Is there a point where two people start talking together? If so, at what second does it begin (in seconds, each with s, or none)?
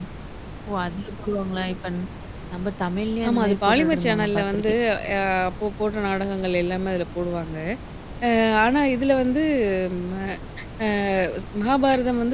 3.3 s